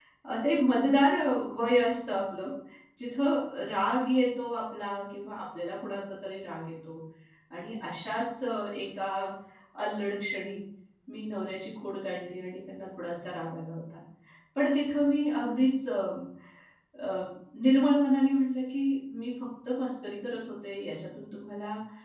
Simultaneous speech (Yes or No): No